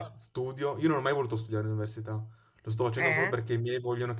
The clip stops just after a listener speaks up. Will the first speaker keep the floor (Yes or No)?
Yes